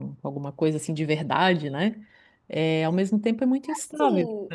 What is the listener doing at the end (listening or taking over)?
taking over